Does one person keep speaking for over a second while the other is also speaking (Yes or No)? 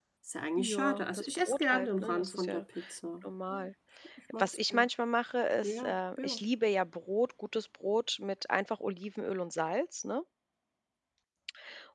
Yes